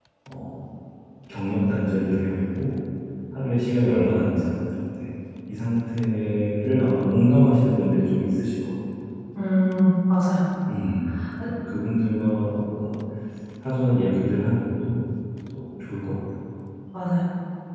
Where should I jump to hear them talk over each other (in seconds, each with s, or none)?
none